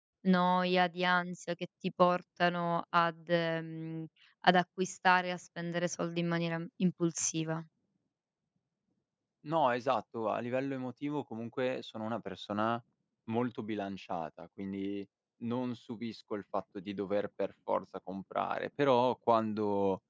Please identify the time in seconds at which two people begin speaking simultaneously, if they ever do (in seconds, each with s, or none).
none